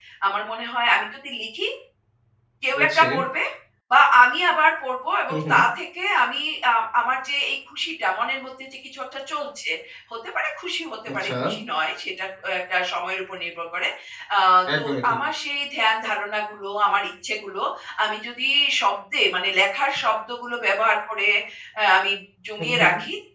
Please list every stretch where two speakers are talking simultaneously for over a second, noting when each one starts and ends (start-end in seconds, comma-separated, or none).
none